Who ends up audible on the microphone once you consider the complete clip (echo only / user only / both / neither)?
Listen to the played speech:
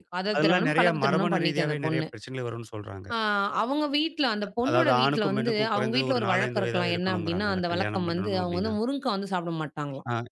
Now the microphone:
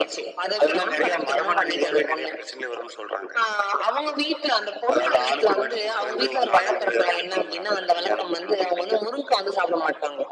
echo only